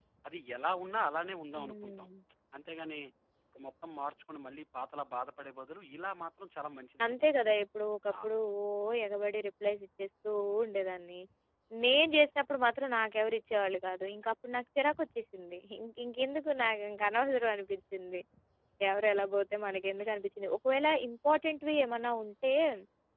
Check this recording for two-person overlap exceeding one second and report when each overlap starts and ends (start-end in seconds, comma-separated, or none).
none